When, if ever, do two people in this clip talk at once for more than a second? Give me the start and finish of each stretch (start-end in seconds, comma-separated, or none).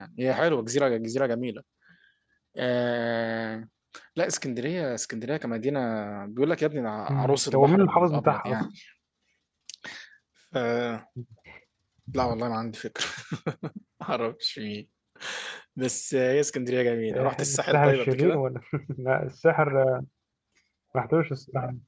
7.1-8.6, 17.1-18.4